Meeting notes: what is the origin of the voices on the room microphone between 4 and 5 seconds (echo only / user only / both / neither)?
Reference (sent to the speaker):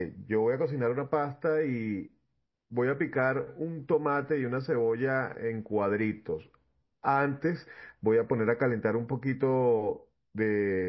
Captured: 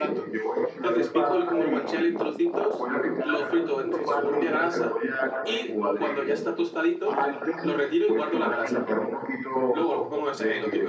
both